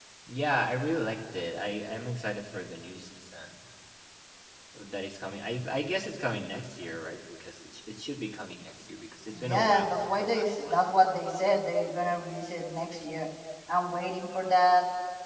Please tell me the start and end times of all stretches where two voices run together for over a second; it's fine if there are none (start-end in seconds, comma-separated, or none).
9.4-10.8